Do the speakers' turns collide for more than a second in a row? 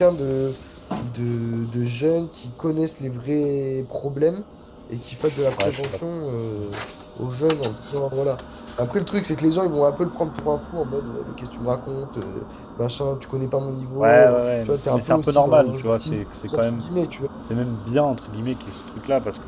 Yes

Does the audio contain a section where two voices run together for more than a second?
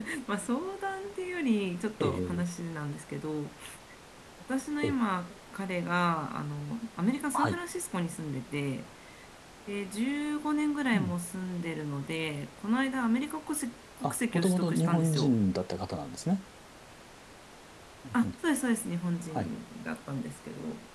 Yes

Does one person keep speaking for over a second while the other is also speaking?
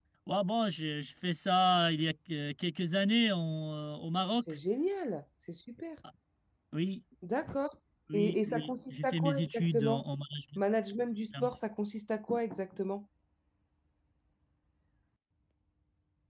Yes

